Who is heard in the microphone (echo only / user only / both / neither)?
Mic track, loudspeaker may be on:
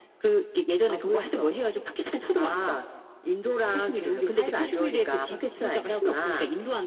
echo only